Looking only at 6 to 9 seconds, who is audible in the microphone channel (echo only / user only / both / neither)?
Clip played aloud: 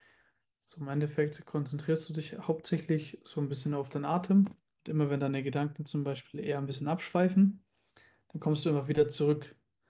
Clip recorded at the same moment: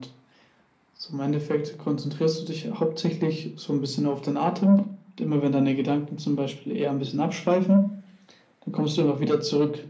echo only